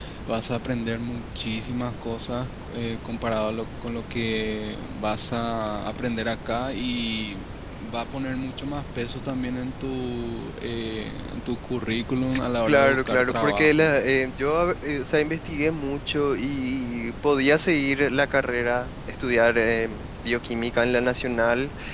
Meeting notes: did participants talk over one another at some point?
Yes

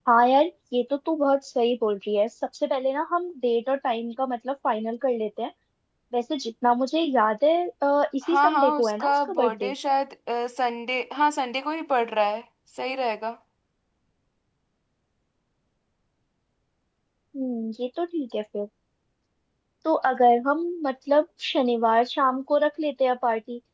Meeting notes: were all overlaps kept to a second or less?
No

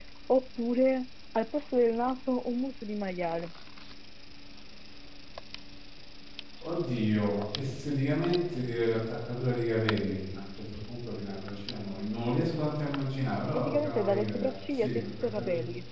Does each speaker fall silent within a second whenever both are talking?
No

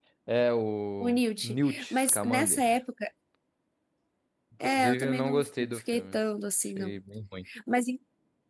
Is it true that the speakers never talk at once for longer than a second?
No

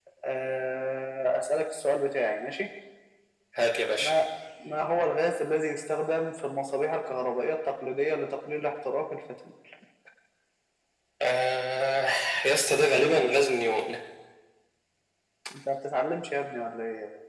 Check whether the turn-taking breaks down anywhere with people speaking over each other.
No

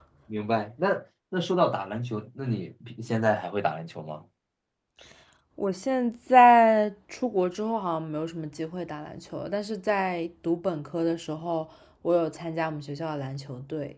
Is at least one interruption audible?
No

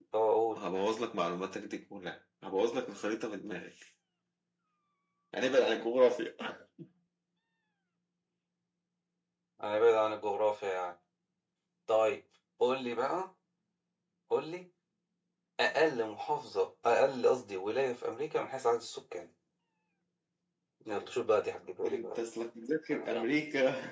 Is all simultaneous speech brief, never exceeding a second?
Yes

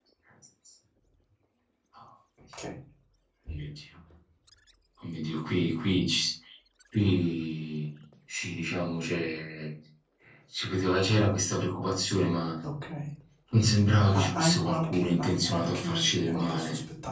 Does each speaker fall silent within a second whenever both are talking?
No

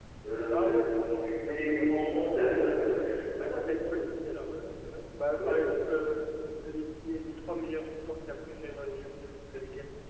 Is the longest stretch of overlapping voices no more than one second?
No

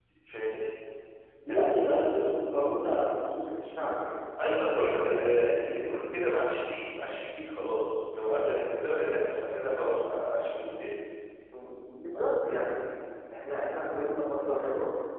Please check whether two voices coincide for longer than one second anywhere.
No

